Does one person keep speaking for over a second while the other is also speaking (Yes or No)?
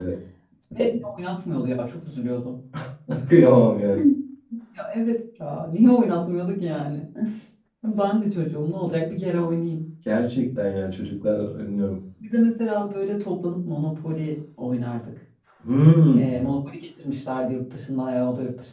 No